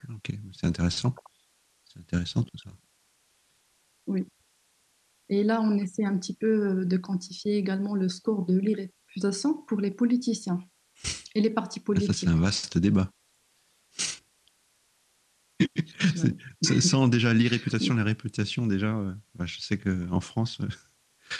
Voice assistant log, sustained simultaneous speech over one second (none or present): none